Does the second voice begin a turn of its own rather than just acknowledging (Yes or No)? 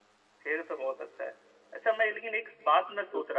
No